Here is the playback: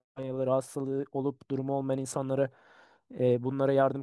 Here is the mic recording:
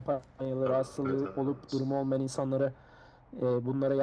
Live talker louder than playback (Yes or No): No